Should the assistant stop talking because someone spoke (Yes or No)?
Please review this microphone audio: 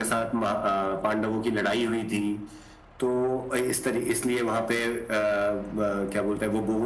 No